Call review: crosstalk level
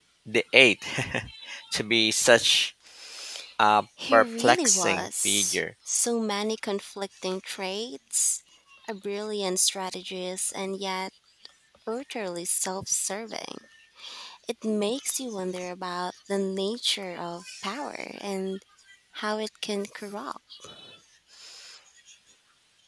present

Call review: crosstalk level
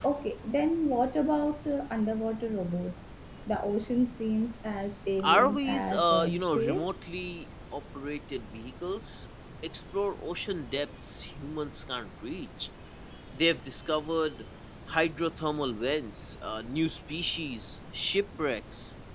present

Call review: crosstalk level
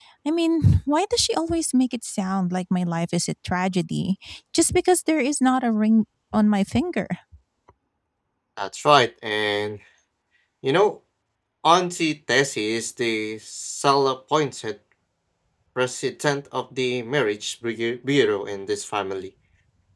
none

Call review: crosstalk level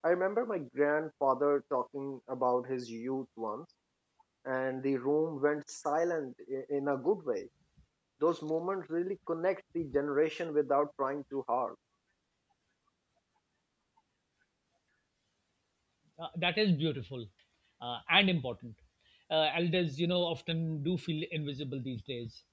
none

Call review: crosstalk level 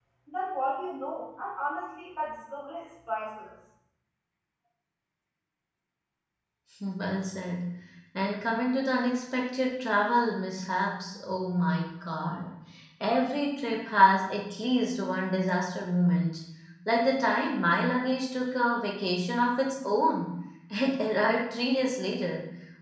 none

